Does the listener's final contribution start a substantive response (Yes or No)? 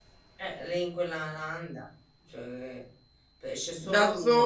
Yes